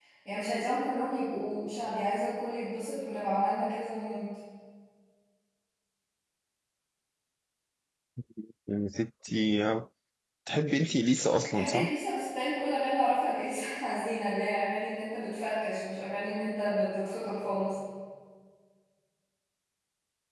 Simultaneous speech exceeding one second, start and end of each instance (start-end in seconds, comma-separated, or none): none